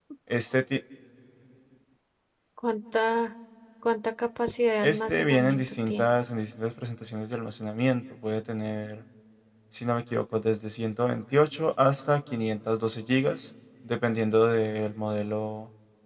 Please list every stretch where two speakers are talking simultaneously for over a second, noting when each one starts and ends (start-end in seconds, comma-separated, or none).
4.8-6.1